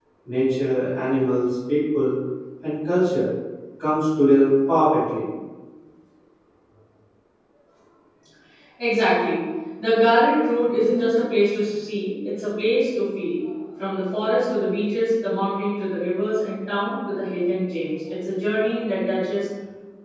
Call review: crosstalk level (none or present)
none